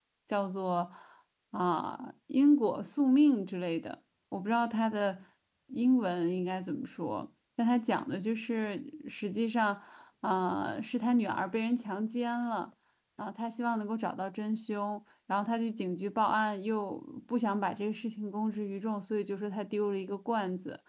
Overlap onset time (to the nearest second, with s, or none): none